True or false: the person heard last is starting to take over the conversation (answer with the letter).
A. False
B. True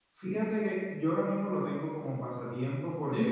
A